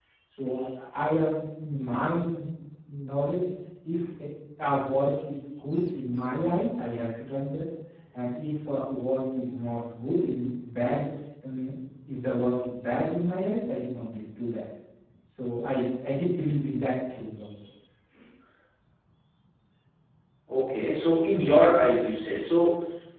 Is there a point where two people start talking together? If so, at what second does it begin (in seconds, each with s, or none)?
none